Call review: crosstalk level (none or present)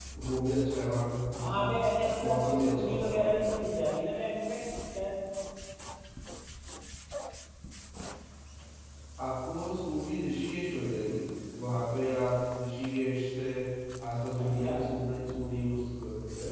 present